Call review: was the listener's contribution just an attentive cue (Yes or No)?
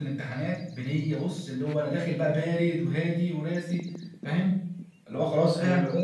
Yes